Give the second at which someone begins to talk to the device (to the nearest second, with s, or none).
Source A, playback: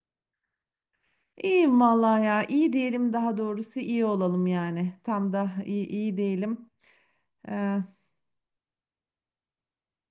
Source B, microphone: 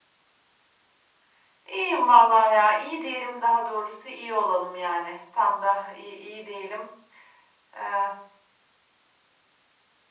none